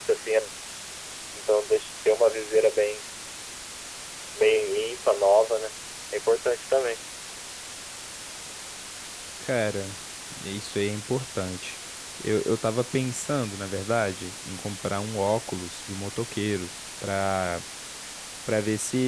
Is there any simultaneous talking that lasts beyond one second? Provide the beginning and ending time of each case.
none

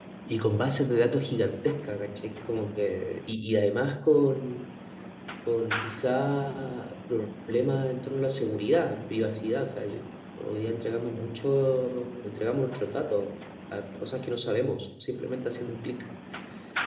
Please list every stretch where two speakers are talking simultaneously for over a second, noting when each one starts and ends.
none

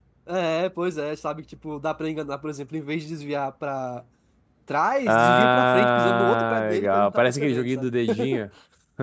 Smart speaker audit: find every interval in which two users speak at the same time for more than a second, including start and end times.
5.1-7.9

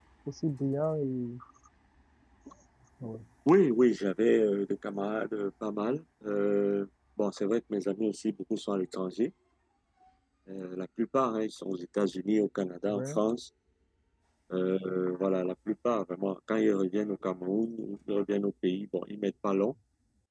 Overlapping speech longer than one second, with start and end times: none

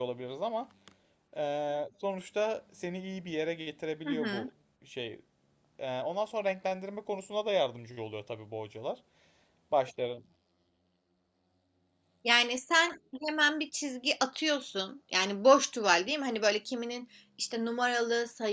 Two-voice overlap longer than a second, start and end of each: none

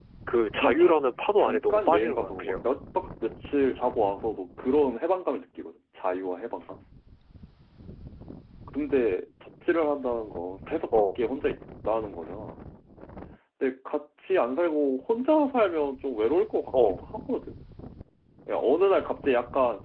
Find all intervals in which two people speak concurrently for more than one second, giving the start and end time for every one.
1.4-2.6

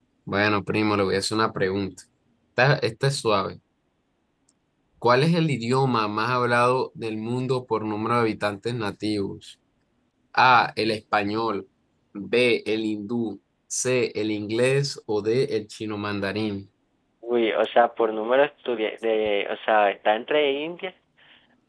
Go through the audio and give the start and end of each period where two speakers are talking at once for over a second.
none

